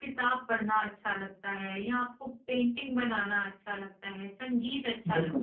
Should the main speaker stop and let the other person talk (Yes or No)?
No